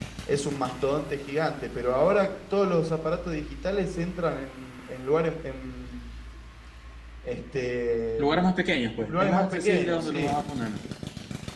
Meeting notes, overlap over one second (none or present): present